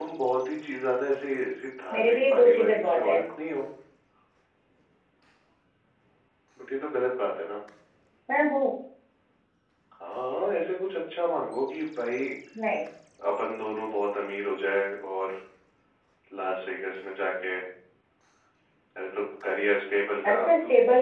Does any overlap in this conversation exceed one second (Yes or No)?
Yes